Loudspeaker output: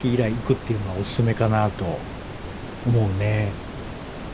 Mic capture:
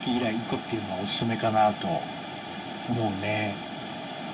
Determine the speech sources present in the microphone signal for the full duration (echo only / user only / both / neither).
echo only